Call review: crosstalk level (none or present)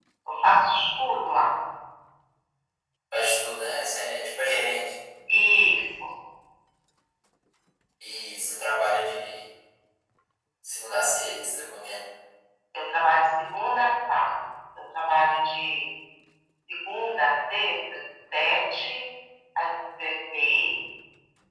none